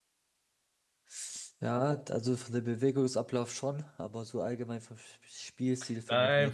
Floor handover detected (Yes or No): Yes